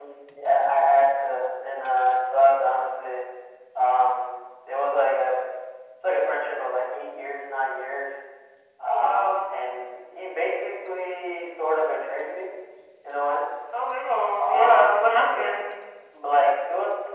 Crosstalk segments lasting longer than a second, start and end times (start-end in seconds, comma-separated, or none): 14.4-15.7